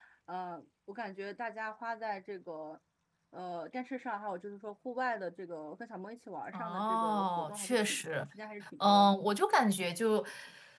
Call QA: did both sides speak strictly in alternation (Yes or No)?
No